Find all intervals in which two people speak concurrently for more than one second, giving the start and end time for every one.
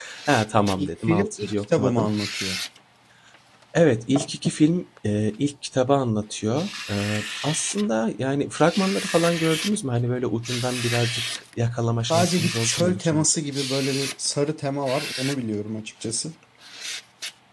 0.8-2.1, 12.1-13.4

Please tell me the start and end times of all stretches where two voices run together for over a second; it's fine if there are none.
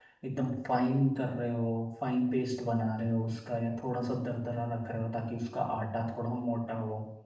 none

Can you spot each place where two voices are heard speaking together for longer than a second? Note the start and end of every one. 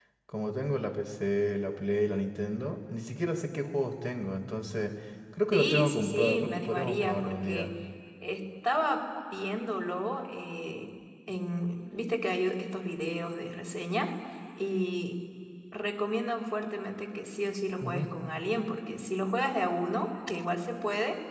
5.5-7.7

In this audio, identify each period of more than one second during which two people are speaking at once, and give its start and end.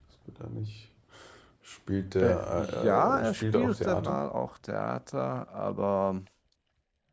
2.2-4.2

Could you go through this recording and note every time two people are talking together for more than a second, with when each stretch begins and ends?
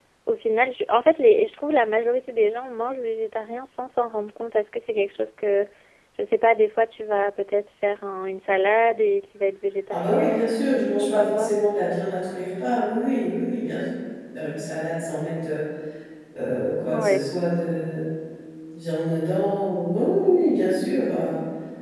9.9-11.5

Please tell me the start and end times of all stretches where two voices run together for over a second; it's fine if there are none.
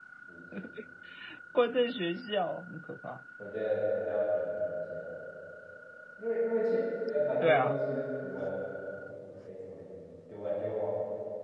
none

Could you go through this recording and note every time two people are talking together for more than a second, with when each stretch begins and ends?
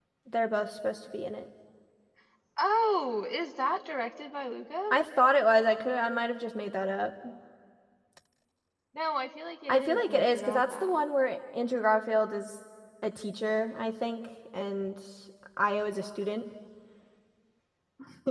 9.7-11.1

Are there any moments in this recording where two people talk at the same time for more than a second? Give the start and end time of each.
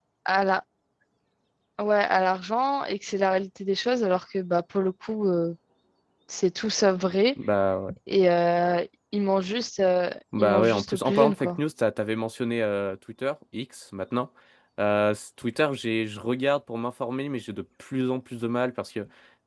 10.4-11.6

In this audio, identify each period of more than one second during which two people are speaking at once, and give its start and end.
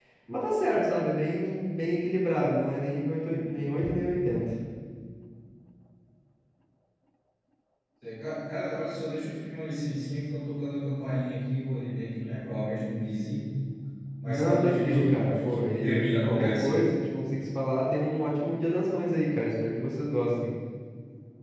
14.2-16.9

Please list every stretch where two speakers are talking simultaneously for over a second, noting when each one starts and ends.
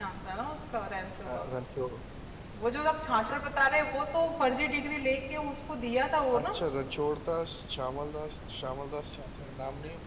none

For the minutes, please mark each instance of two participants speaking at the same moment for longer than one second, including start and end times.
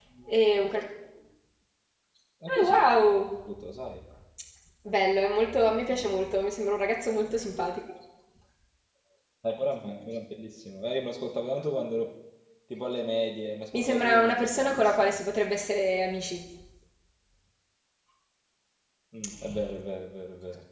13.7-15.1

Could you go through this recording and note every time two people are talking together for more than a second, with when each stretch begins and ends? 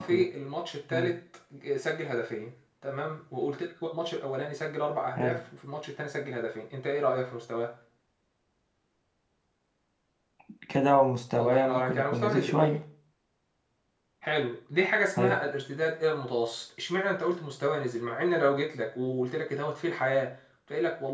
11.4-12.6

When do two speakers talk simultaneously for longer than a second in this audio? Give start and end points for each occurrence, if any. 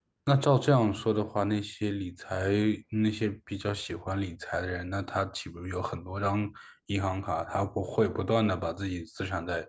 none

